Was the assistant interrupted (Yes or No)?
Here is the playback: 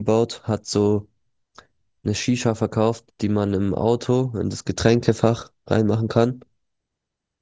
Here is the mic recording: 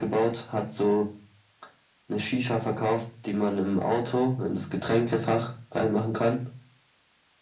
No